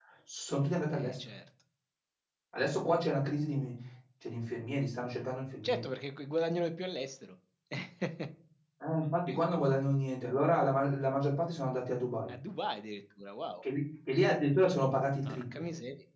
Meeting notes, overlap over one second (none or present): none